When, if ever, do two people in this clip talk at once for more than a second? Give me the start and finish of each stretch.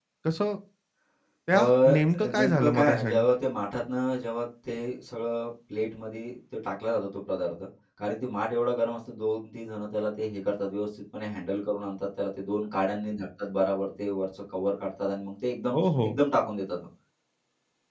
1.5-3.2

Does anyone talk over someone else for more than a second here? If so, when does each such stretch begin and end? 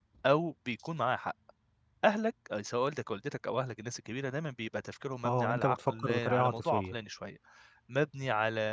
5.2-6.9

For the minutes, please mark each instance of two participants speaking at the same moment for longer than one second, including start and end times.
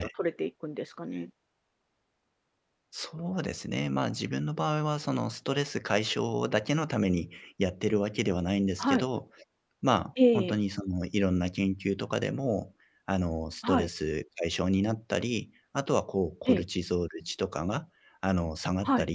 none

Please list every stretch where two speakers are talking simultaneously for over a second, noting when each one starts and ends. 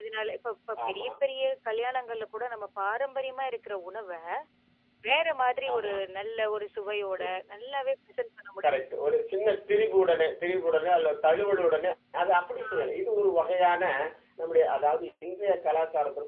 none

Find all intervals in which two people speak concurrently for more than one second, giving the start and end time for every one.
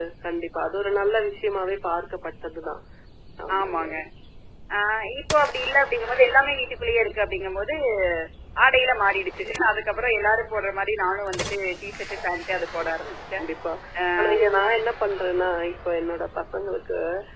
none

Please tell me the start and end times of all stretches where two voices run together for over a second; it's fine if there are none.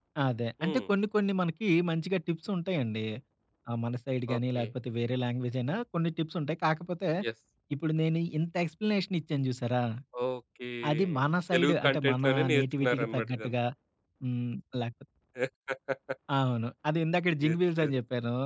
11.5-13.5

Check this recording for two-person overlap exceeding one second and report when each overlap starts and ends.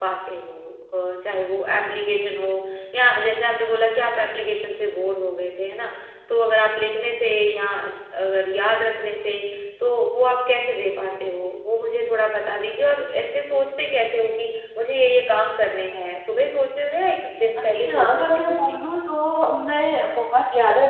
17.6-18.8

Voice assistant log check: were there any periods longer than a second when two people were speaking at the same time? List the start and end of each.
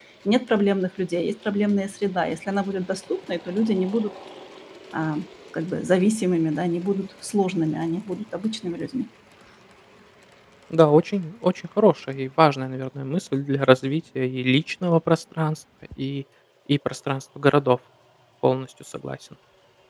none

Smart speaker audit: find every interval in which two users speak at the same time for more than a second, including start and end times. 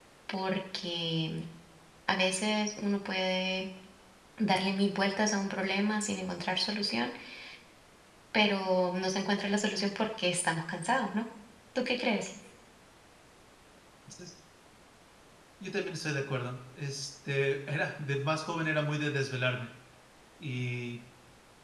none

